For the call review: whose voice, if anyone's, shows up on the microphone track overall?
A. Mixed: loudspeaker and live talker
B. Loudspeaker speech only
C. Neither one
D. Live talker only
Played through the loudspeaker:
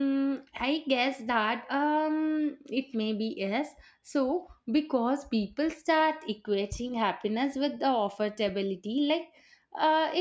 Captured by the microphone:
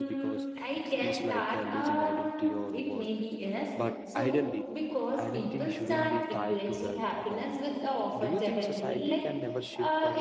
A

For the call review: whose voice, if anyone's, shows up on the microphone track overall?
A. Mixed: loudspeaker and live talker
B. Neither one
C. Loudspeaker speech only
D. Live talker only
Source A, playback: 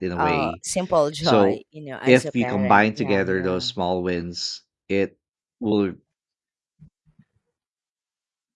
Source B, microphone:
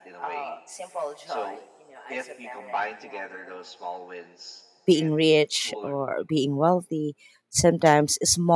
A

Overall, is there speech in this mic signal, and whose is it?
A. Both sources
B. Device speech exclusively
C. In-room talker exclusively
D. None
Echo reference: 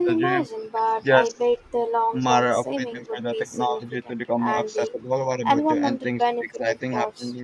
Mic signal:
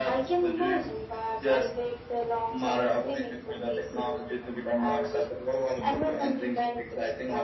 B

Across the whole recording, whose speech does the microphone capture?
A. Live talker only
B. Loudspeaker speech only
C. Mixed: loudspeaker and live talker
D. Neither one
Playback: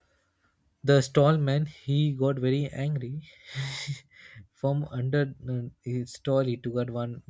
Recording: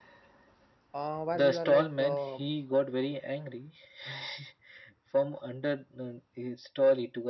C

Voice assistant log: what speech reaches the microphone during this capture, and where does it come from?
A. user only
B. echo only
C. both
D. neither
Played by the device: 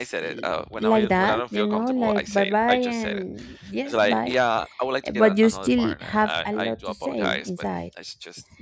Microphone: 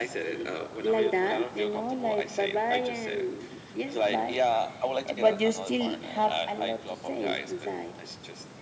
B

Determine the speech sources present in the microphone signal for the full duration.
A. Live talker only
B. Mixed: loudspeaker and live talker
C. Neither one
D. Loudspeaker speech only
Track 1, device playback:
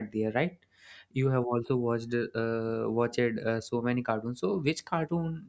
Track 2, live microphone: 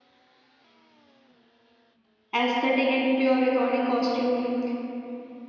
A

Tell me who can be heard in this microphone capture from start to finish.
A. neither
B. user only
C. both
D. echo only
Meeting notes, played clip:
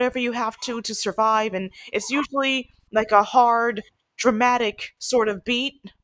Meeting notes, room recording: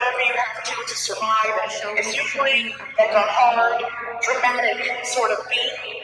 C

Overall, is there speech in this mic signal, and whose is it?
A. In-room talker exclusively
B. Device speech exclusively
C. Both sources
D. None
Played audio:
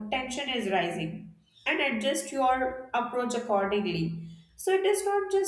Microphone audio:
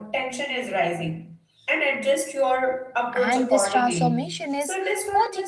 C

